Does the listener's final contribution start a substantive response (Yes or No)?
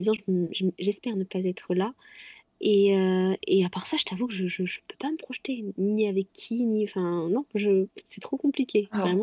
Yes